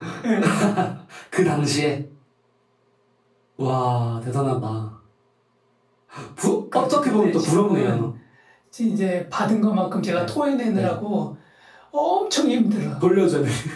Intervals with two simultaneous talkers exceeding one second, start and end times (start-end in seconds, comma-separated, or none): 6.7-8.1